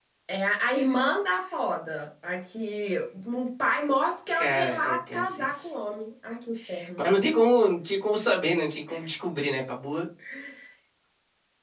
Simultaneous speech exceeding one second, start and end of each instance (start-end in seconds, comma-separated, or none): 4.3-5.7